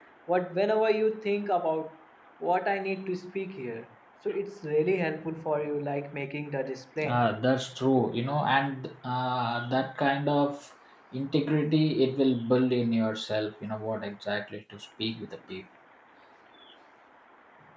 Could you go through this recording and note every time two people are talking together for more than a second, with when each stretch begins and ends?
none

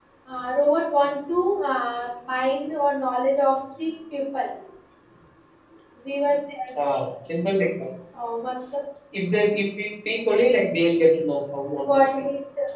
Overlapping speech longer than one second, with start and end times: none

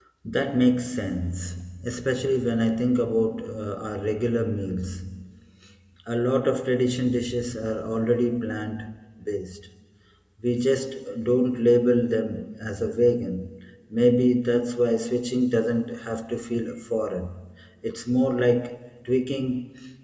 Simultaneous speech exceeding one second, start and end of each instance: none

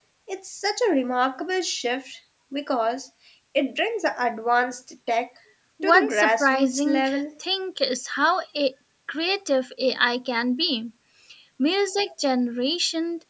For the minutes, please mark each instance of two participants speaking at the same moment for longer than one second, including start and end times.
5.8-7.0

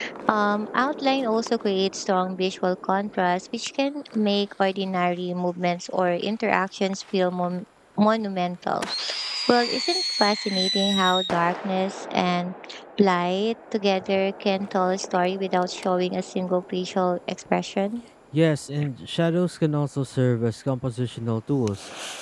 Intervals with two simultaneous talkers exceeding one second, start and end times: none

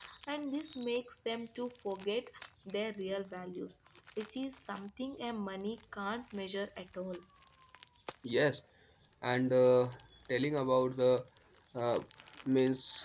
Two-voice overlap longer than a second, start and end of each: none

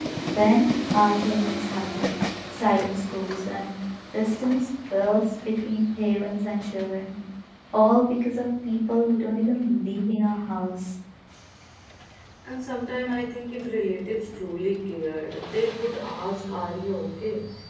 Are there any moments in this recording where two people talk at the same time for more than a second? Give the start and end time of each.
none

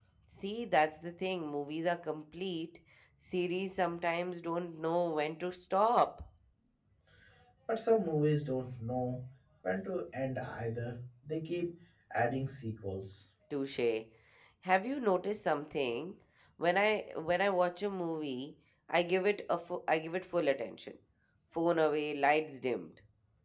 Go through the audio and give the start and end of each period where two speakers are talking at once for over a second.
none

